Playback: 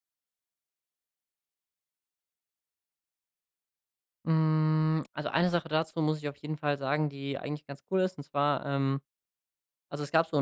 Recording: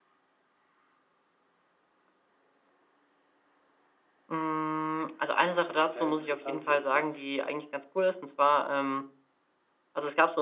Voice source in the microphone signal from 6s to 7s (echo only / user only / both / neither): both